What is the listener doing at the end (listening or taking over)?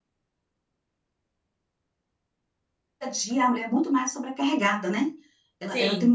listening